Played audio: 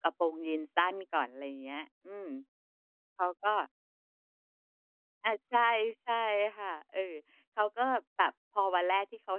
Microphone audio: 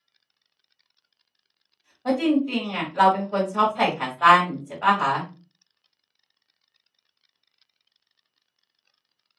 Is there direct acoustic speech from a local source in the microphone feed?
Yes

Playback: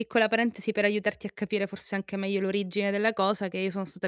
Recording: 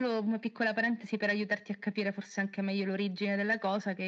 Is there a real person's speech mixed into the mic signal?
No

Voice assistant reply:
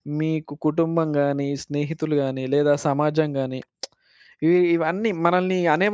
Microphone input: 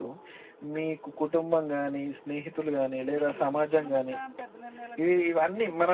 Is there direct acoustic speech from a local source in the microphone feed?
Yes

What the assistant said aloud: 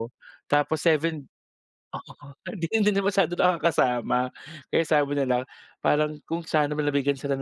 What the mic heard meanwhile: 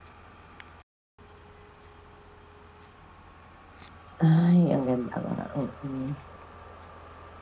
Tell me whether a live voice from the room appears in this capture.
Yes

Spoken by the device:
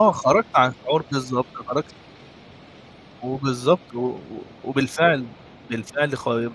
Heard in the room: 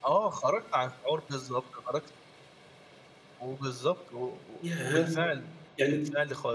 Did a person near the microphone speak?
Yes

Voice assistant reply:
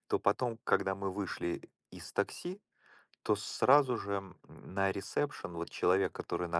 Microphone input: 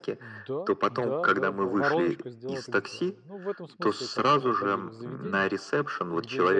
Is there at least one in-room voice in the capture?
Yes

